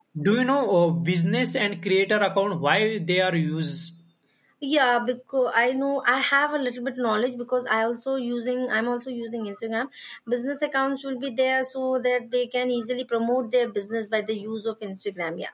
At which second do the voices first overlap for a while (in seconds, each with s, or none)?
none